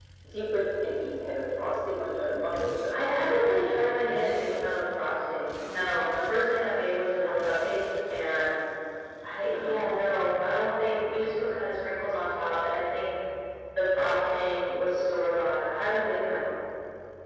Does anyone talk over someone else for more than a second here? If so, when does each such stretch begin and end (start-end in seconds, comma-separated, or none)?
none